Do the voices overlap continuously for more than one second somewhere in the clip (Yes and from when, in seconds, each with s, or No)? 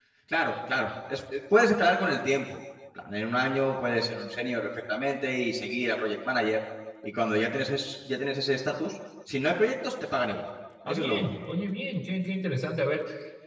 No